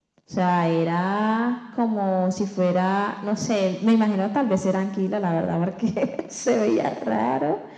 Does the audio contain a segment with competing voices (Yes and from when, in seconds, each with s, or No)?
No